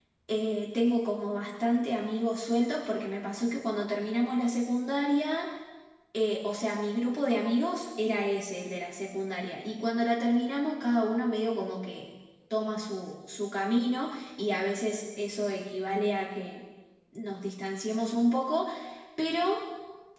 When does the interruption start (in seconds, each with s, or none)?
none